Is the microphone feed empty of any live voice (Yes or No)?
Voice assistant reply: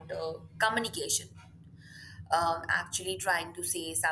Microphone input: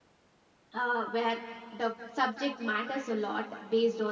No